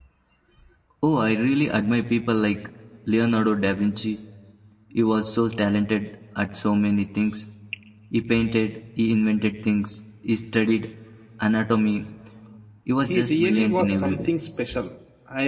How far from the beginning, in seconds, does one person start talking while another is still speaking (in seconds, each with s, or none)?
13.1 s